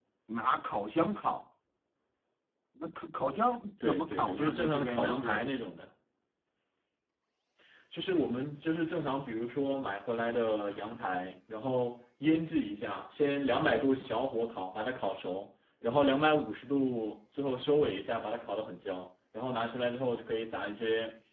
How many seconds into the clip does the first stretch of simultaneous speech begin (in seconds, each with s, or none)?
3.8 s